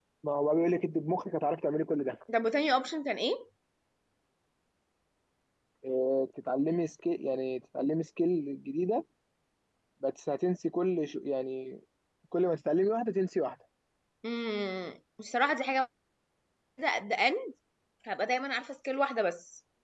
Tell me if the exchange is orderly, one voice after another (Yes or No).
Yes